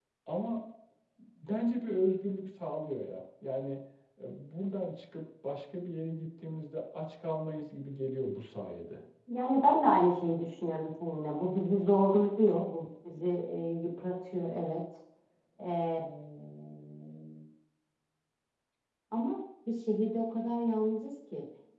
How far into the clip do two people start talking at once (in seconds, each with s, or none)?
none